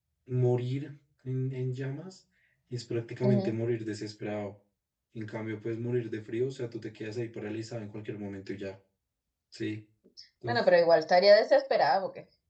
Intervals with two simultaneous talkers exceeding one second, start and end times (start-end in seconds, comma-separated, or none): none